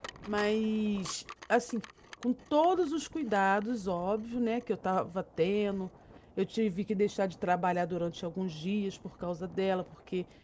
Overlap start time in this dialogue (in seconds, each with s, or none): none